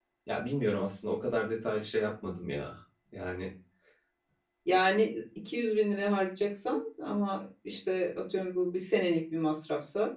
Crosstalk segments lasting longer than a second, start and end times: none

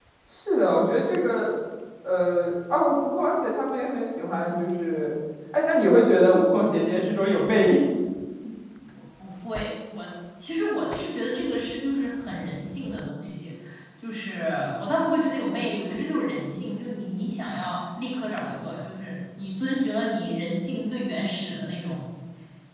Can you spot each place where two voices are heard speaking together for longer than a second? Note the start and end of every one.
none

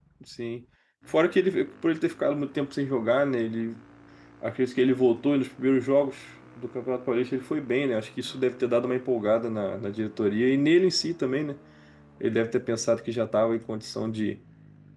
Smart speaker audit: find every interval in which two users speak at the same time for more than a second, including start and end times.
none

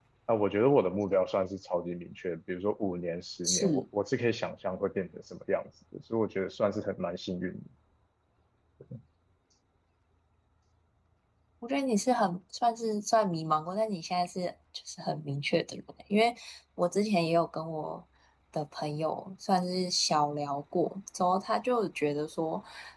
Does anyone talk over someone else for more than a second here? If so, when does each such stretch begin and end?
none

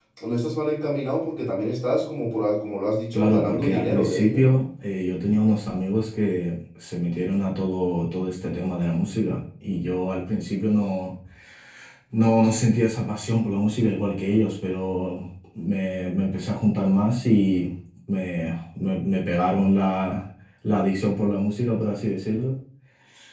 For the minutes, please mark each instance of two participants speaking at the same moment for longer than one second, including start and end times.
3.1-4.6

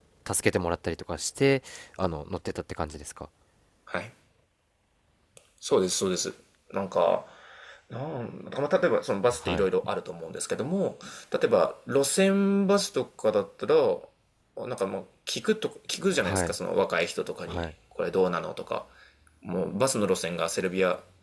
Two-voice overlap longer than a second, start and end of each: none

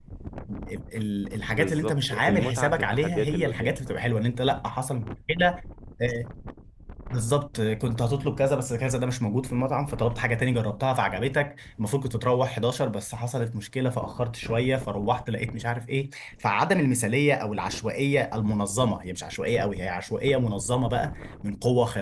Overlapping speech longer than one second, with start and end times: 1.5-3.8

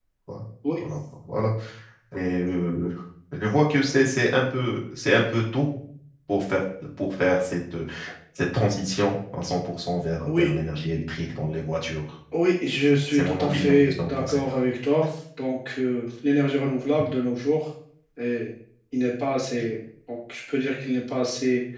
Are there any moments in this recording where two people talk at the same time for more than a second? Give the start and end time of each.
13.1-14.4

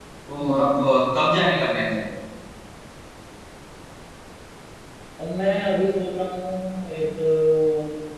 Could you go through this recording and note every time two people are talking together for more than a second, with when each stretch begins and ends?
none

